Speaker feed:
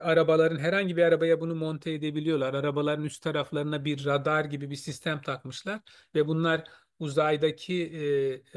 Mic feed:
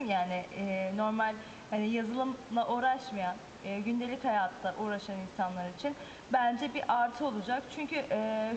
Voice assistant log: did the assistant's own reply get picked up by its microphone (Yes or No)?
No